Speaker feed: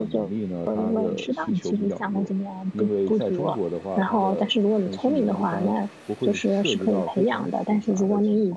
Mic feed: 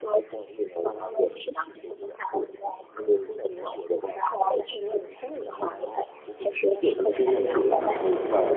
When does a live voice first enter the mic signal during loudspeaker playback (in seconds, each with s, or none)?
7.1 s